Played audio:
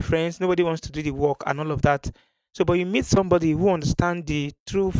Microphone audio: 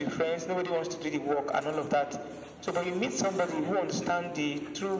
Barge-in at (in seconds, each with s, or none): none